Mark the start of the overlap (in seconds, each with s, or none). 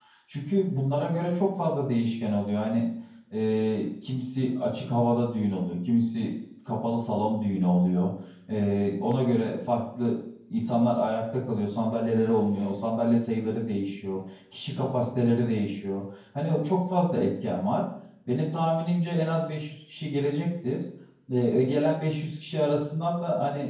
none